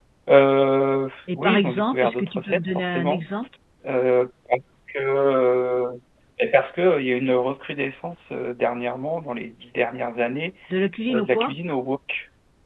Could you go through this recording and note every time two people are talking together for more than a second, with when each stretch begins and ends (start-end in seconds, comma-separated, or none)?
1.4-3.2